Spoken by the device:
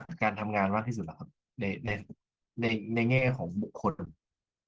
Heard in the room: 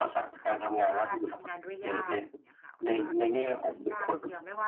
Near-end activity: present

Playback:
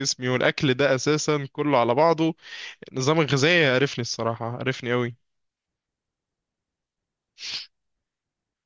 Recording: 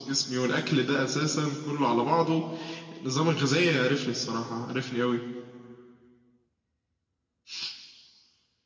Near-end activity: none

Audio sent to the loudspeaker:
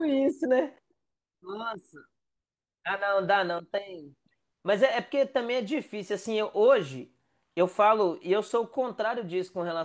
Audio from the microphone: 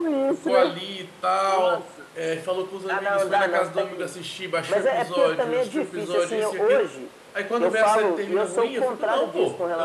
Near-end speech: present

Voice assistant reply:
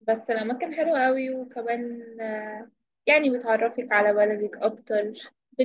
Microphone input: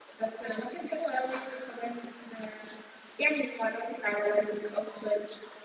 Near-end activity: none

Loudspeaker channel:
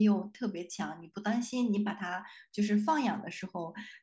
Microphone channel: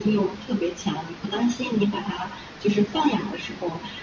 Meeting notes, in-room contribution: none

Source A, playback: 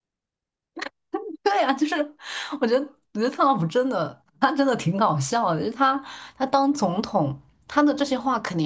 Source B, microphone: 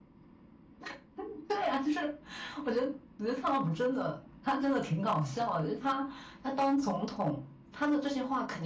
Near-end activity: none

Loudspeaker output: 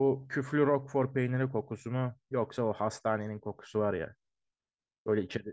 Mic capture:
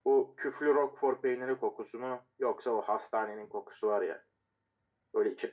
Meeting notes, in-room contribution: none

